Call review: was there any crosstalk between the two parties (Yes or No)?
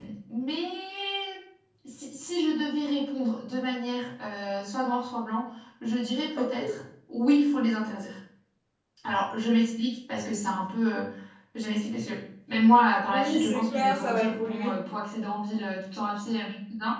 Yes